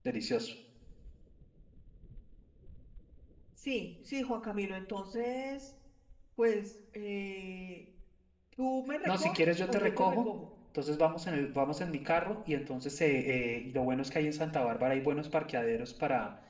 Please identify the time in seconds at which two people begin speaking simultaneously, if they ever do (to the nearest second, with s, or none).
9 s